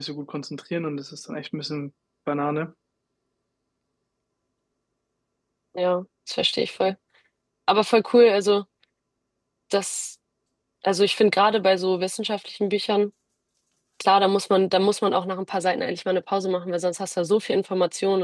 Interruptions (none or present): none